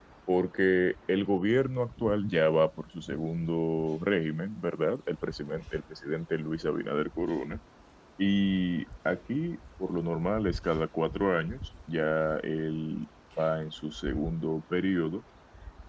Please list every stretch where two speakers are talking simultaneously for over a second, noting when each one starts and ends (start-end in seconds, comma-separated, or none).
none